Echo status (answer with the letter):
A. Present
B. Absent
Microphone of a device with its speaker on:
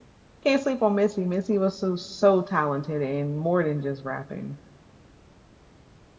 B